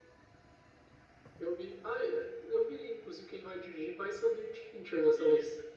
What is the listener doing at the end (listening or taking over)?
taking over